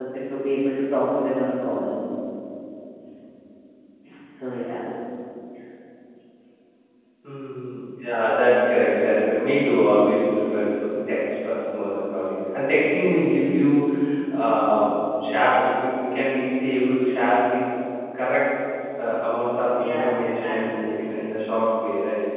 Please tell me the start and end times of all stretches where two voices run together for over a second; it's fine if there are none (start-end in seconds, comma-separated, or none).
19.7-21.2